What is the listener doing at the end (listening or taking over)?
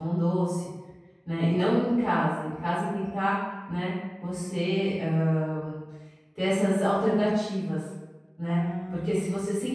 listening